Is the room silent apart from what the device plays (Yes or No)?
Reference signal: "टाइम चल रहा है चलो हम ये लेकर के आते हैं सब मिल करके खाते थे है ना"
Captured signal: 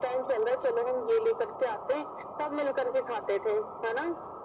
Yes